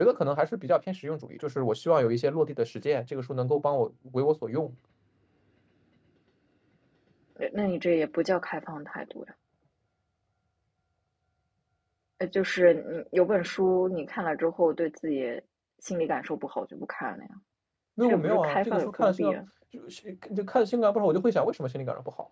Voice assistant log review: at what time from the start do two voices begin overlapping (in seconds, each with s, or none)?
18.0 s